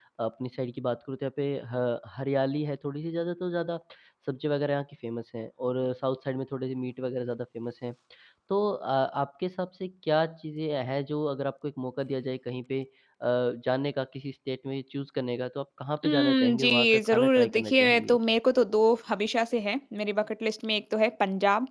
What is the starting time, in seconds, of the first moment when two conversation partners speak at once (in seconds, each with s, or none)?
16.0 s